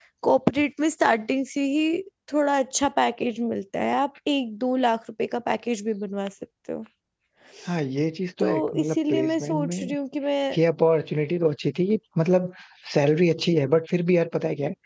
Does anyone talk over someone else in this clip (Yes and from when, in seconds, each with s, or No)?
Yes, from 8.4 s